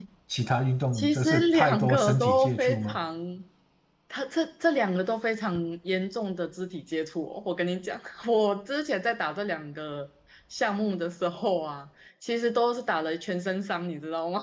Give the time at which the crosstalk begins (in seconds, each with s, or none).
0.9 s